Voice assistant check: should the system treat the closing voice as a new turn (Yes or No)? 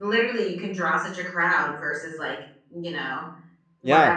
No